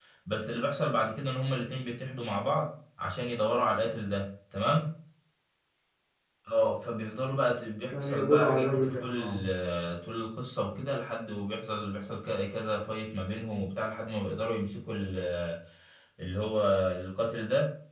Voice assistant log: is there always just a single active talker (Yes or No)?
No